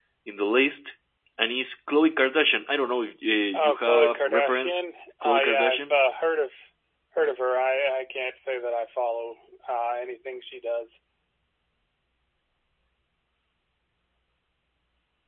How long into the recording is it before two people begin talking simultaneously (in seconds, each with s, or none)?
3.5 s